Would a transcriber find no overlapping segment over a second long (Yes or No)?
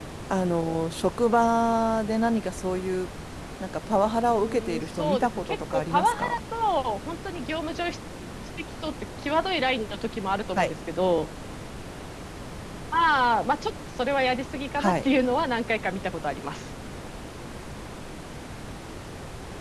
No